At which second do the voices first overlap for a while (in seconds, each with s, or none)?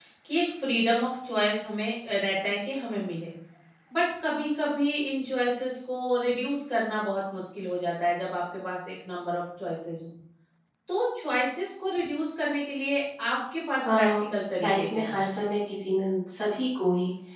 13.8 s